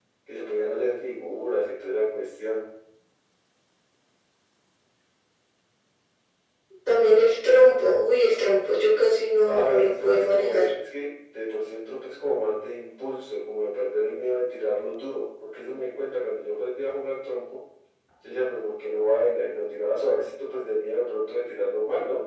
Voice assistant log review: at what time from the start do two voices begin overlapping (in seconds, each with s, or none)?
9.4 s